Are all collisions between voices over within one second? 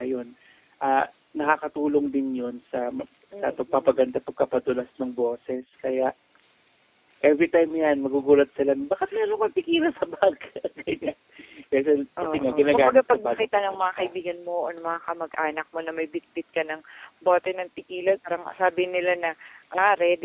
No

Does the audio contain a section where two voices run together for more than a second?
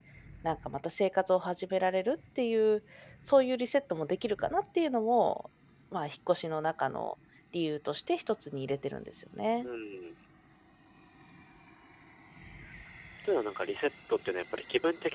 No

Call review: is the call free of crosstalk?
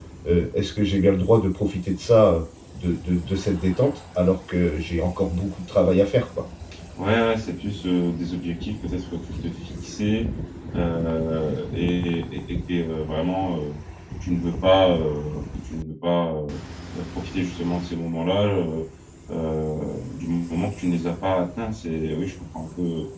Yes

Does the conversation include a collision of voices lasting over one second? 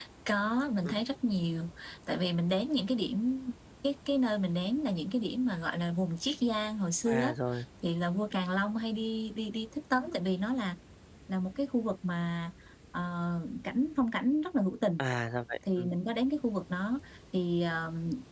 No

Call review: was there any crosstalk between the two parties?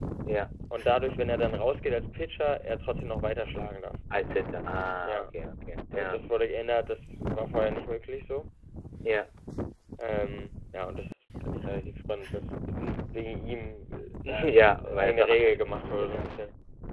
Yes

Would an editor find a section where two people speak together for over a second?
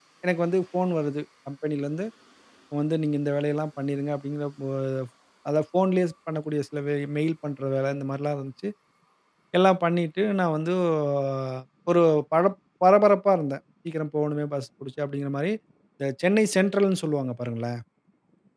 No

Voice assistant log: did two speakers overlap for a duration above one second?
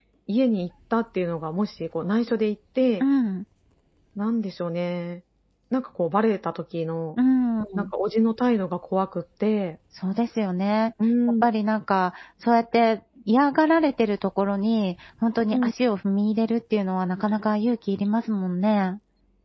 No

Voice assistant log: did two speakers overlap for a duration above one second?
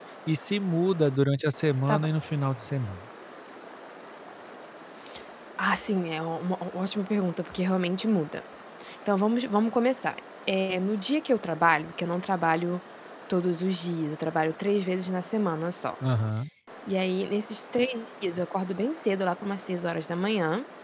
No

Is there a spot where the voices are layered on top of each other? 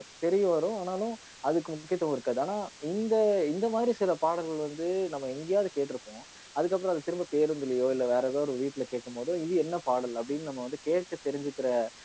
No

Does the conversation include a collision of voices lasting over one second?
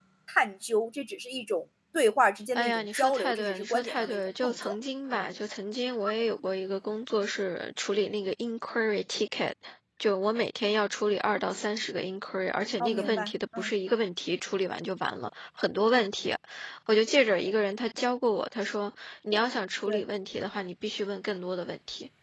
Yes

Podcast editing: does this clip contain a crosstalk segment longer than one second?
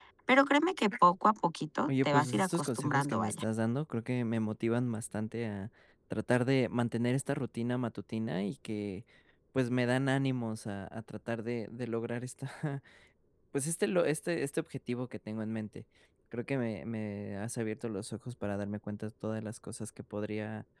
Yes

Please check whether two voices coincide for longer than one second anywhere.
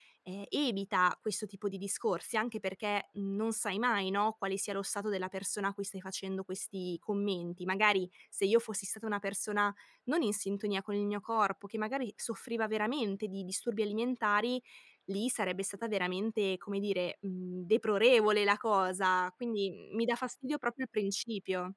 No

